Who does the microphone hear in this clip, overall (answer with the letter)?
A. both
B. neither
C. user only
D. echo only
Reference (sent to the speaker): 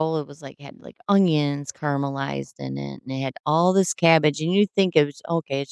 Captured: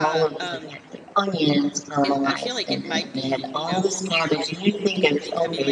A